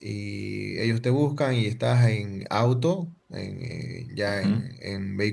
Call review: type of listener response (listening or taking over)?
listening